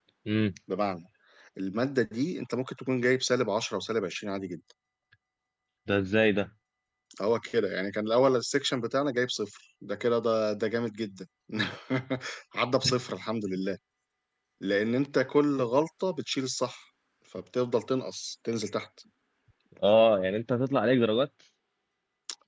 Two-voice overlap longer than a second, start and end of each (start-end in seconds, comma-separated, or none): none